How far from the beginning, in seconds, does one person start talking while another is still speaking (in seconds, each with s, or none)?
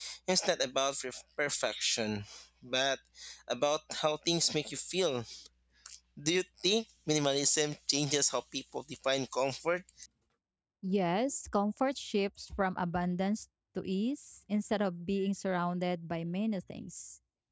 none